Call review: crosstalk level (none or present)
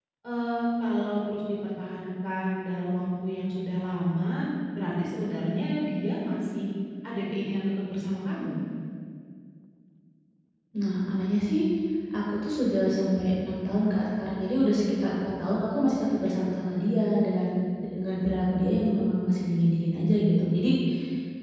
none